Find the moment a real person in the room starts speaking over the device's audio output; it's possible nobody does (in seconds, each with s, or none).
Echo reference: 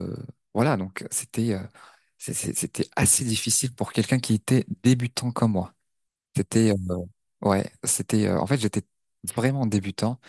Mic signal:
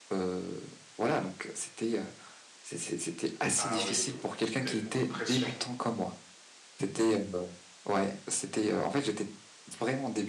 3.5 s